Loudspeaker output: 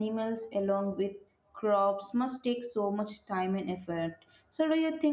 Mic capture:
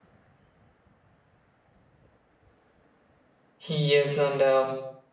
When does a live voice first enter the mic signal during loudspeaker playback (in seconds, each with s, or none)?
3.7 s